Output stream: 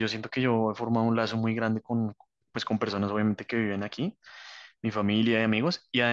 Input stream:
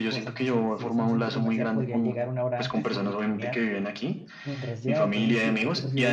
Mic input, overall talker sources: both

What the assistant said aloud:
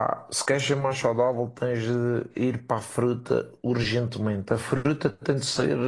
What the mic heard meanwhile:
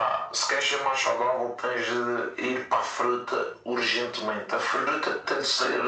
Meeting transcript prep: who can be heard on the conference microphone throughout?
echo only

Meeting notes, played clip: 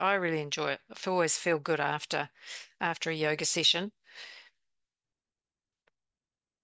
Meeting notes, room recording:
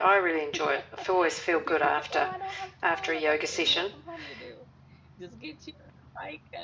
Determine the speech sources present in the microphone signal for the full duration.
both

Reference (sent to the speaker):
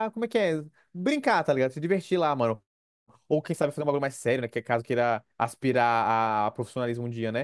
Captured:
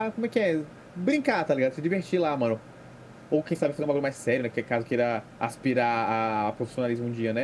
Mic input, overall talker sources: echo only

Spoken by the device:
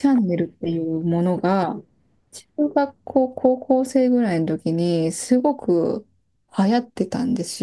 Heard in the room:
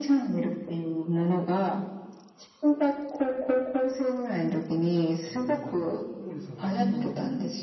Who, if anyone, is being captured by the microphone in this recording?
both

